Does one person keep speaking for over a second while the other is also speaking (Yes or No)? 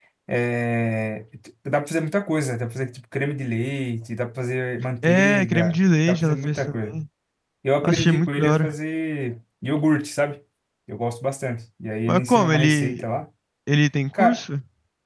Yes